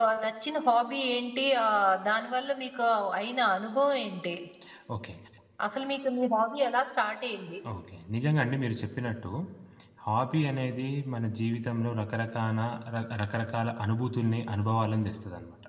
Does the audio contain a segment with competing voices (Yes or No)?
No